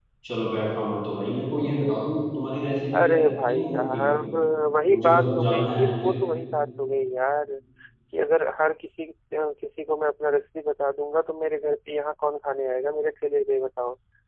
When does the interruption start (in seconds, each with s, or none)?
3.0 s